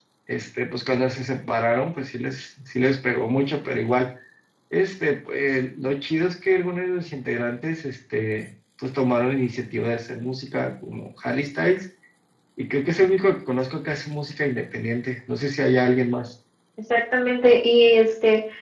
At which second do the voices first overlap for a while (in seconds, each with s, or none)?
none